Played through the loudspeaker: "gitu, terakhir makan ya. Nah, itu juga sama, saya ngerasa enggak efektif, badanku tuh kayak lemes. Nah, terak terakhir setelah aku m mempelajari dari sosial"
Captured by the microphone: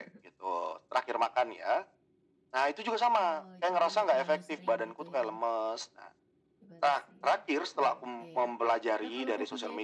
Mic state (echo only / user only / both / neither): both